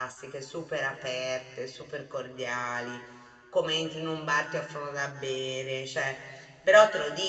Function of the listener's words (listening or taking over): listening